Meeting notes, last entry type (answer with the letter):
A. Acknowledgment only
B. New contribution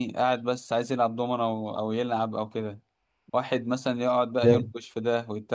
A